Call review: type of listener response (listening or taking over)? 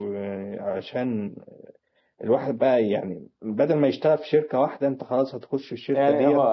taking over